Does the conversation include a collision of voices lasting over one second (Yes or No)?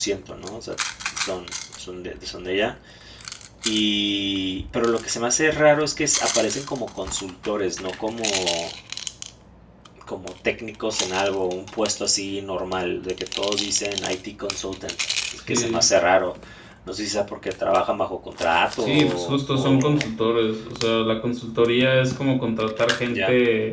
Yes